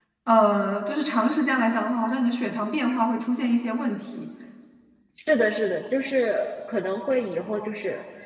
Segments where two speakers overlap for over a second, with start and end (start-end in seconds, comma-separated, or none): none